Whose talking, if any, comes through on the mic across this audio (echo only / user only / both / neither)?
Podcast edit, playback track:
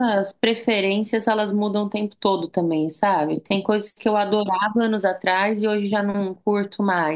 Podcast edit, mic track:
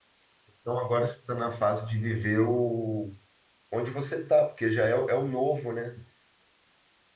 user only